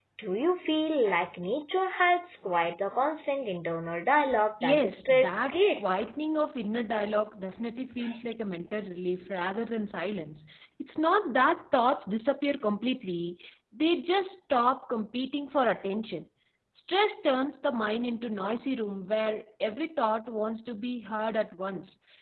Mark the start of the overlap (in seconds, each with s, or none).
4.6 s